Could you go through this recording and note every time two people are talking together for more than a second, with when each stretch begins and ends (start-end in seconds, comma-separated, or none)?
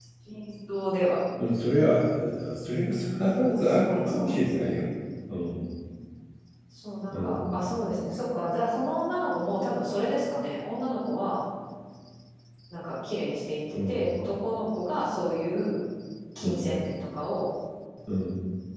3.5-4.9